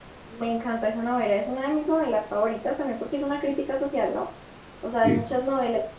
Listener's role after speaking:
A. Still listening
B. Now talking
A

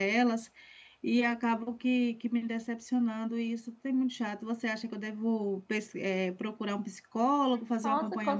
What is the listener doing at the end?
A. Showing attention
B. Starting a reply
B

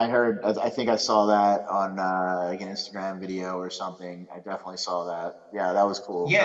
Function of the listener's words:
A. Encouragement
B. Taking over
B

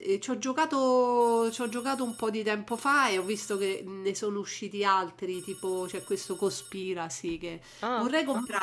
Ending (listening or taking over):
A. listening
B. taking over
A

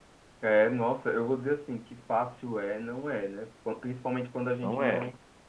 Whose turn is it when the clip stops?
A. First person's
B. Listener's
A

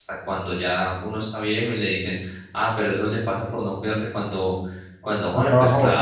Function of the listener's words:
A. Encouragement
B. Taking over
A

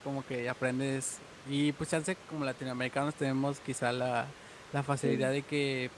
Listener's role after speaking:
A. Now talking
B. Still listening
B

